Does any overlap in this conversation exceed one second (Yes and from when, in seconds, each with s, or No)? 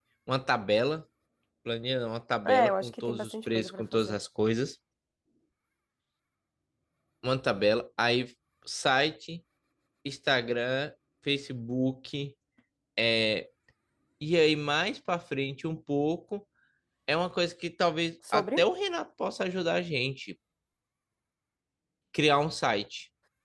Yes, from 2.4 s